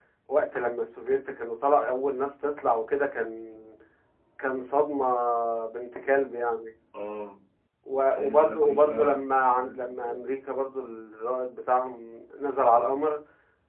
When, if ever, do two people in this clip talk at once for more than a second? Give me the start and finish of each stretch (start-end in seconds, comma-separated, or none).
8.1-10.2